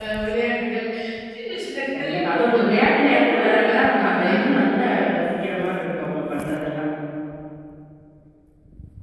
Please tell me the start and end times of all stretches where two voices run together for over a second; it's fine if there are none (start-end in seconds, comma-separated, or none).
2.0-4.3